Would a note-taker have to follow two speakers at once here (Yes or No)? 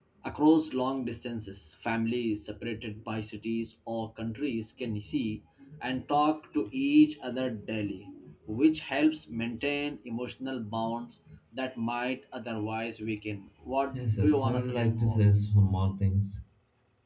Yes